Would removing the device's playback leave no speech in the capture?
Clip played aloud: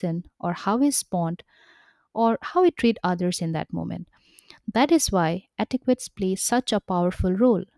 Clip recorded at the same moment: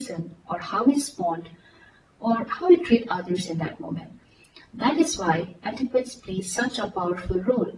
Yes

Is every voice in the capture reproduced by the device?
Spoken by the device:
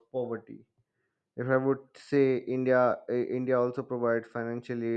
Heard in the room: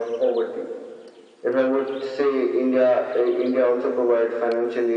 Yes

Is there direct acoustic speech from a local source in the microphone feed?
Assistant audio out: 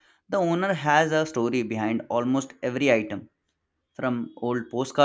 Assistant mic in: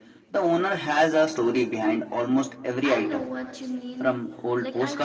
Yes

